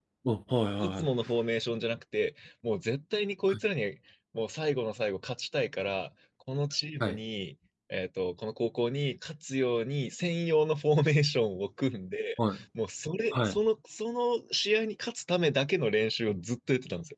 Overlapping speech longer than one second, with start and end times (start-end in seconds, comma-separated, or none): none